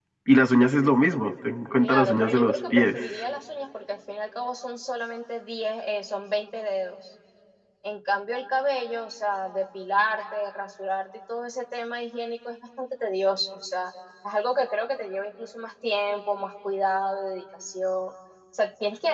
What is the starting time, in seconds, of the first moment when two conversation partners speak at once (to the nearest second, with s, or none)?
2 s